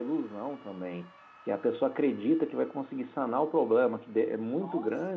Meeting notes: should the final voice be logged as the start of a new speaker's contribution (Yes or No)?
No